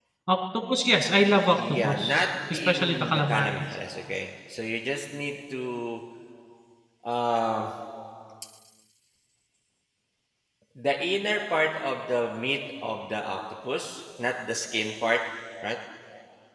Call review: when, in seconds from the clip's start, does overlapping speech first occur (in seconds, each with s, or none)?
1.6 s